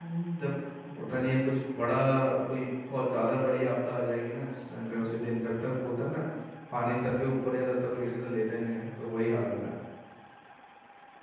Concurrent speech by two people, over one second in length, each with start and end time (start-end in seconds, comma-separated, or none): none